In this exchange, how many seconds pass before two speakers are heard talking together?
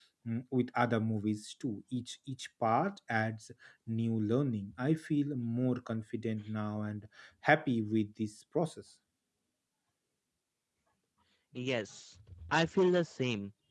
none

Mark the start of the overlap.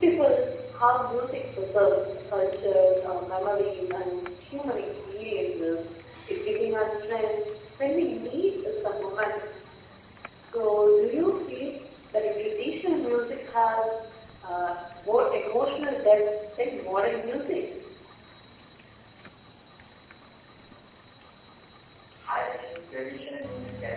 none

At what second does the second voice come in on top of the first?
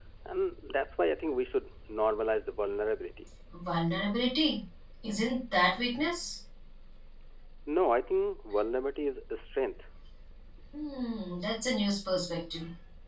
none

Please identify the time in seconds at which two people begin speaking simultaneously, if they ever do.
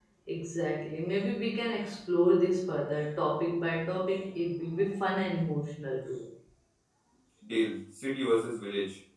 none

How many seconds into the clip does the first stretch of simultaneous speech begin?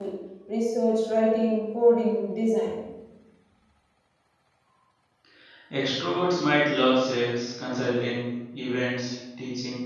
none

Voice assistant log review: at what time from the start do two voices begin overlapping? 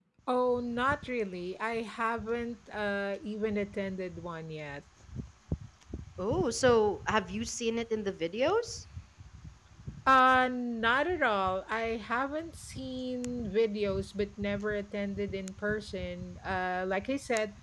none

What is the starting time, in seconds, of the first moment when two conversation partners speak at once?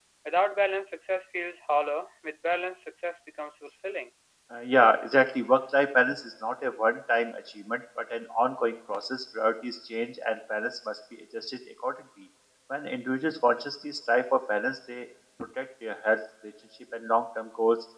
none

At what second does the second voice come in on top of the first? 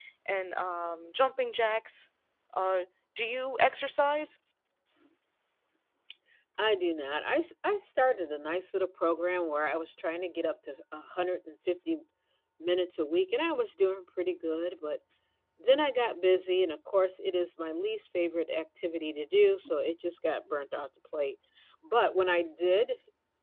none

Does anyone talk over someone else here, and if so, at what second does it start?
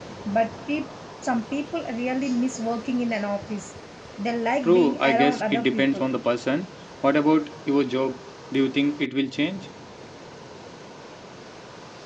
4.6 s

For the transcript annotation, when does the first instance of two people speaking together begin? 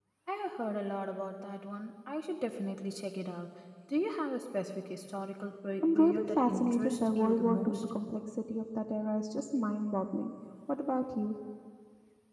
5.8 s

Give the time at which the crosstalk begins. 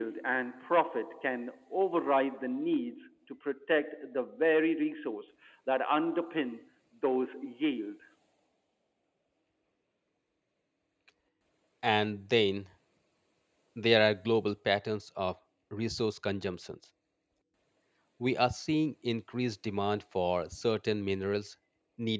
none

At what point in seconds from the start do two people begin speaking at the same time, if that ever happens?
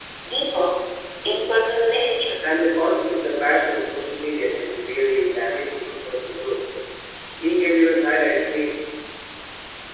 none

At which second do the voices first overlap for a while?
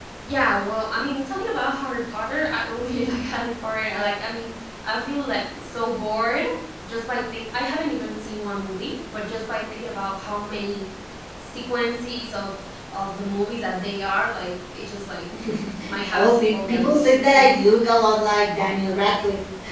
16.1 s

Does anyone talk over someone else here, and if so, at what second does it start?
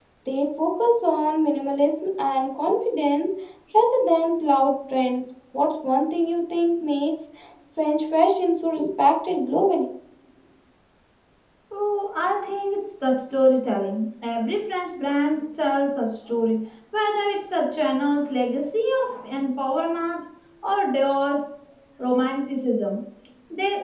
none

